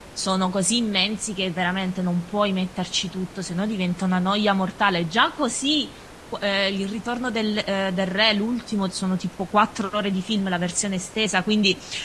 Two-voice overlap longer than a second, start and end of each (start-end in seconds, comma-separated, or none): none